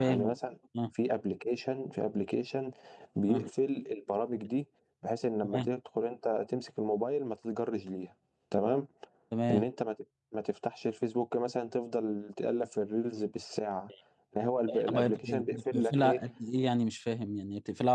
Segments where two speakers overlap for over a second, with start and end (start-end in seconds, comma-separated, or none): 14.9-16.2